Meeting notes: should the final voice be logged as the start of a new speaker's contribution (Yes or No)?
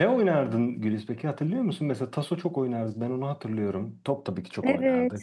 Yes